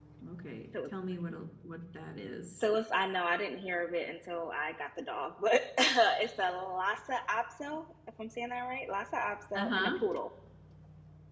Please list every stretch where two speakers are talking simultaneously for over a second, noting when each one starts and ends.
none

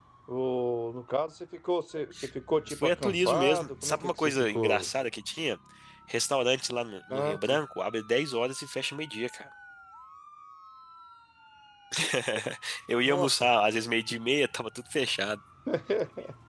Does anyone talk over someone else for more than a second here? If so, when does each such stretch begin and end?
2.7-4.9

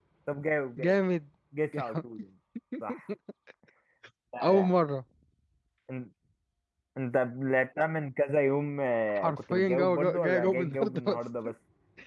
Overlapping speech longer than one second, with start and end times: 9.1-11.2

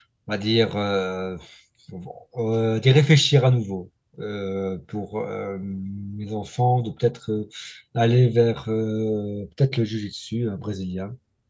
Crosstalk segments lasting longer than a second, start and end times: none

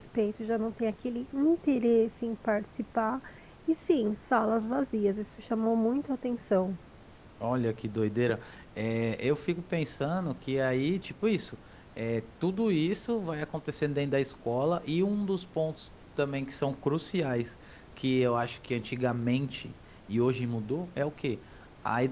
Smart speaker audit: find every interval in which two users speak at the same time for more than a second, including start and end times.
none

